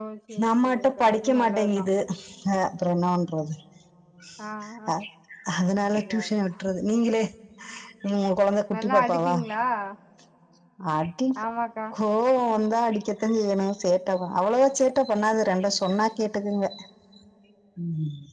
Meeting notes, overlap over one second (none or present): present